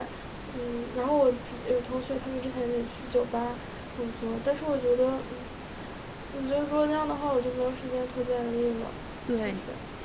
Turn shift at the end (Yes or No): Yes